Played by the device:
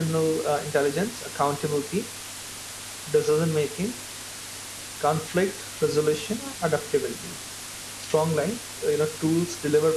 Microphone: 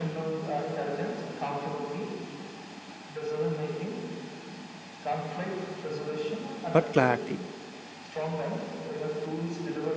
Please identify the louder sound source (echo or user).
user